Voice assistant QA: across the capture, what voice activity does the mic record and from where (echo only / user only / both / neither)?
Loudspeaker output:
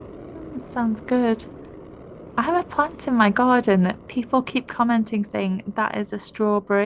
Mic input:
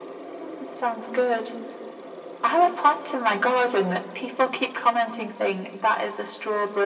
echo only